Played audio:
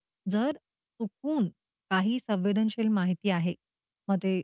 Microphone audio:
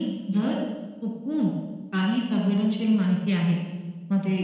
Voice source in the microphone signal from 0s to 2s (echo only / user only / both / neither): echo only